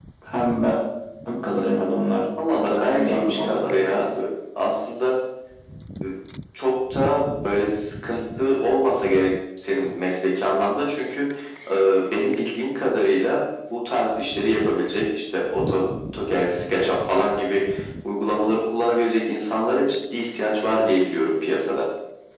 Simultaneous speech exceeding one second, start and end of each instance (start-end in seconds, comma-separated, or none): 2.6-4.1